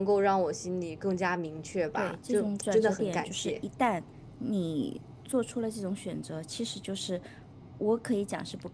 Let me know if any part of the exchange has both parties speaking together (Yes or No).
Yes